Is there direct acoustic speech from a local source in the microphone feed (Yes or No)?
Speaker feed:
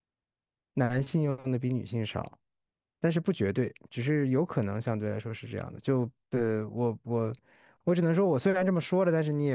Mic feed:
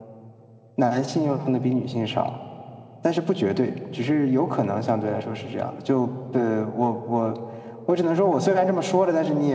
No